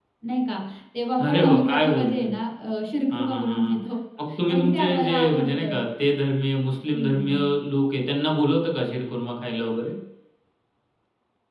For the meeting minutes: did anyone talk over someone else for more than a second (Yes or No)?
Yes